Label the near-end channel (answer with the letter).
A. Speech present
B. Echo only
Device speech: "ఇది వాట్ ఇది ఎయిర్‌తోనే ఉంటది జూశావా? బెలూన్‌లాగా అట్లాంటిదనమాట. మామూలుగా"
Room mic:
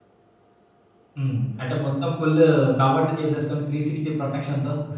A